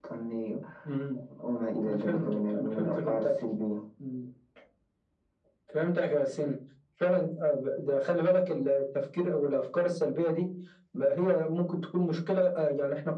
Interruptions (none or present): present